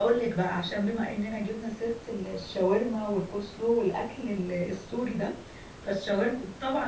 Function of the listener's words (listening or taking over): listening